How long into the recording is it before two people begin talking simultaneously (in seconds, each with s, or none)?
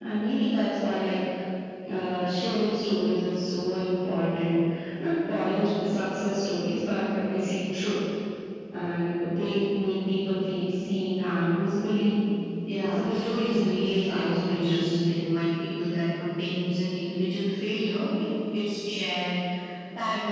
12.8 s